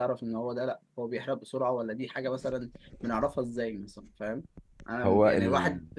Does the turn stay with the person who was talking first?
Yes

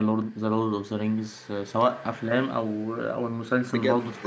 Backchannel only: No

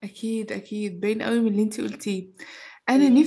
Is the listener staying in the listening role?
Yes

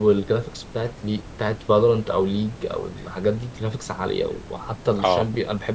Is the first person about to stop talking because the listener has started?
No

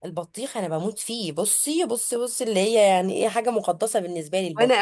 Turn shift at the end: Yes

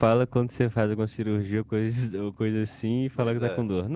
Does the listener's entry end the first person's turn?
No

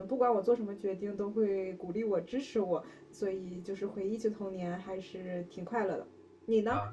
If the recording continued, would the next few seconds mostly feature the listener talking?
Yes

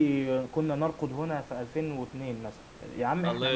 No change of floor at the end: No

